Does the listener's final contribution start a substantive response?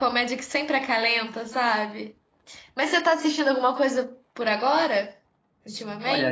Yes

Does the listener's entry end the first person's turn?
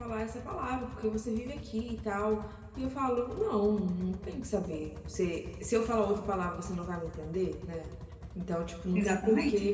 No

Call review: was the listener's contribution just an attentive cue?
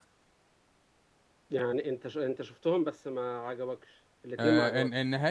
No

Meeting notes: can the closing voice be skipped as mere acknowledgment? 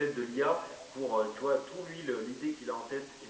Yes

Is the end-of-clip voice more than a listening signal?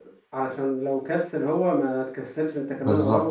Yes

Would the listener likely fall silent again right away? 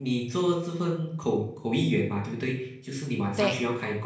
Yes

